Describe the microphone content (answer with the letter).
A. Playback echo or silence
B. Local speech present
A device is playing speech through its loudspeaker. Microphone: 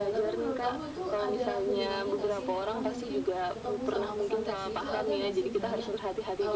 B